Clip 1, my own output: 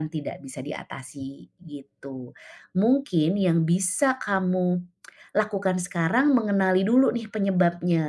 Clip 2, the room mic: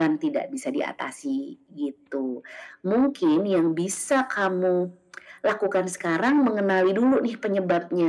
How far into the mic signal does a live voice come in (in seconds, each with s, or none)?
none